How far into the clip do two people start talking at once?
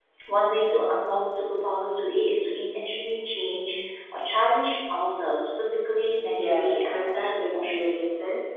6.2 s

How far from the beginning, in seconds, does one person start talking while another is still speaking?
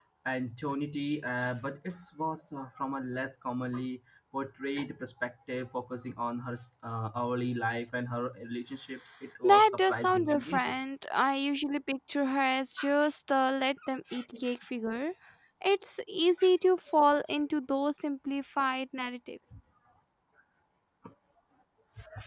9.4 s

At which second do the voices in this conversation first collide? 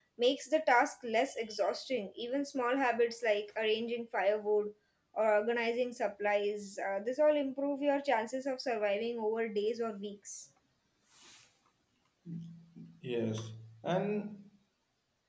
none

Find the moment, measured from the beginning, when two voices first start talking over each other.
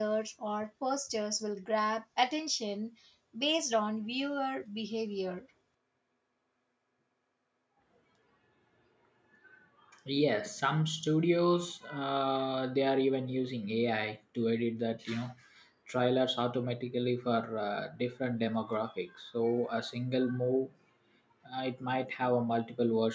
none

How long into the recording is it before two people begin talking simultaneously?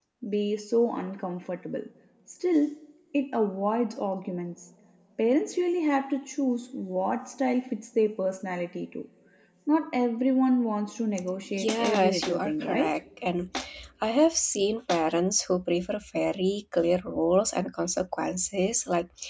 11.6 s

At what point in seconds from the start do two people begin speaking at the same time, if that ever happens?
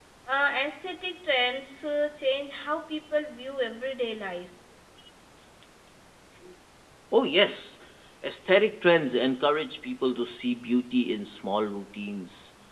none

